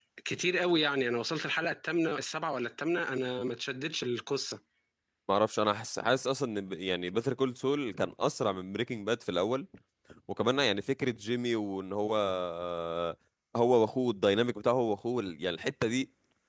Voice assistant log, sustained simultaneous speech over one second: none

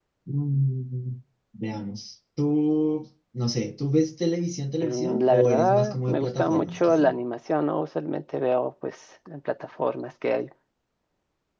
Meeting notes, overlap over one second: present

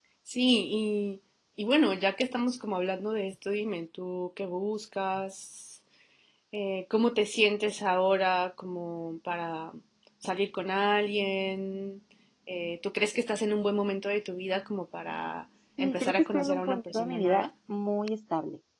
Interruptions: present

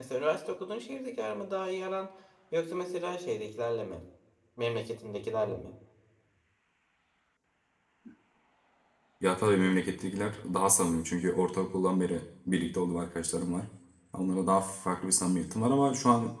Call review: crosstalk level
none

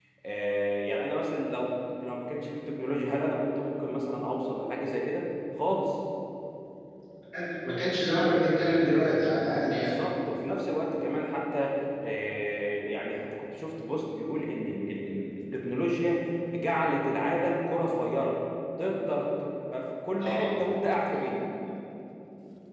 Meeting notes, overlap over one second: none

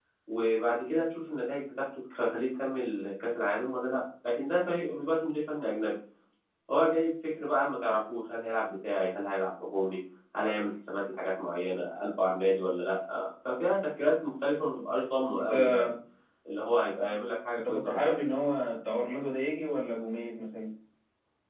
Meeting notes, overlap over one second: none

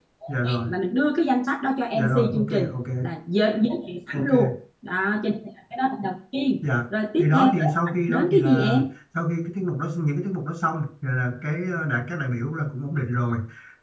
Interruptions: present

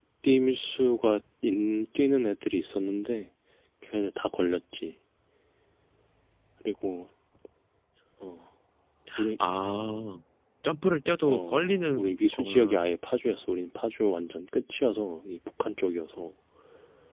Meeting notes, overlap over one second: present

